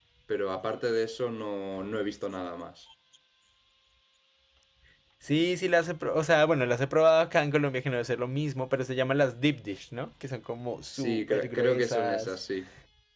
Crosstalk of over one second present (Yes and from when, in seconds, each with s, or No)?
Yes, from 10.9 s